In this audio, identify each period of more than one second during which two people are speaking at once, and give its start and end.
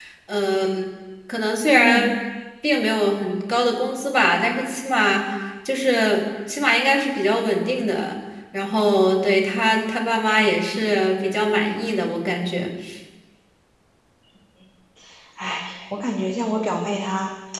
none

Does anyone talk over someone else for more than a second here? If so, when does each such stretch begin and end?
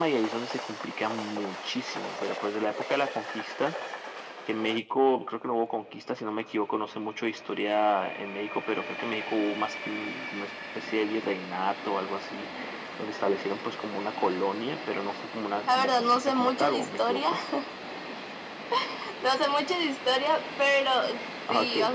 15.7-17.3

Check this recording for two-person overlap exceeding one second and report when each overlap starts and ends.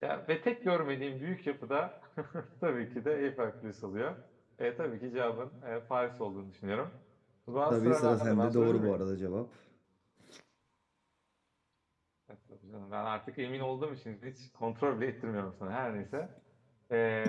7.7-8.9

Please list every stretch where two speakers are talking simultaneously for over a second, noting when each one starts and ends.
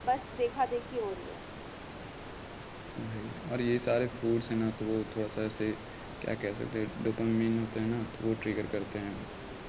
none

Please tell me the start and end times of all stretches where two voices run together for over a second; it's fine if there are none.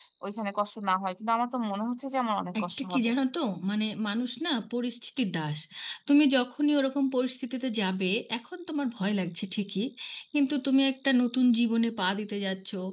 none

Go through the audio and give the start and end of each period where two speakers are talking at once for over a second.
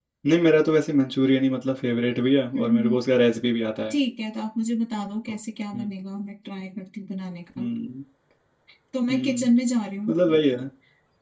none

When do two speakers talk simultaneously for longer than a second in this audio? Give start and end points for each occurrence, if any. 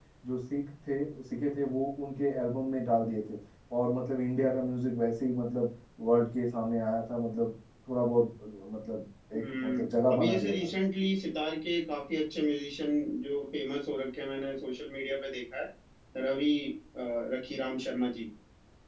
9.3-10.7

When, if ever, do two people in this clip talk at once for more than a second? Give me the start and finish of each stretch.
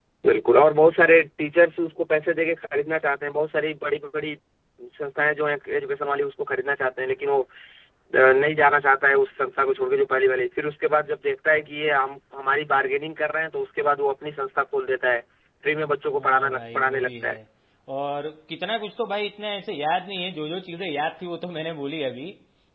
16.1-17.4

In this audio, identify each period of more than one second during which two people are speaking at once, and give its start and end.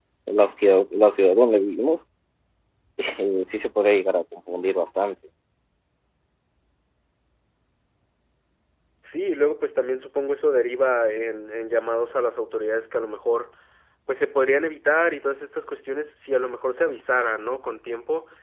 none

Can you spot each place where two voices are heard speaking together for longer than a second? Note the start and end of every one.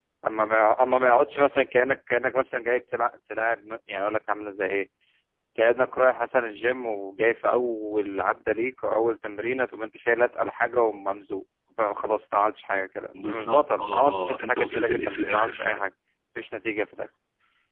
13.2-15.8

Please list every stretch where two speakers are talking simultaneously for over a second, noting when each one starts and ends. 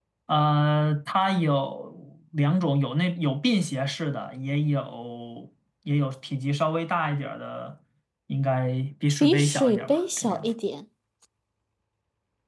9.2-10.5

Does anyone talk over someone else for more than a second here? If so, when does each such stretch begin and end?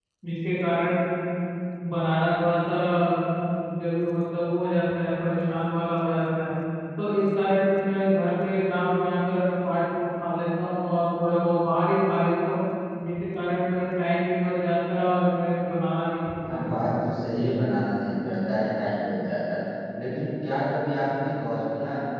none

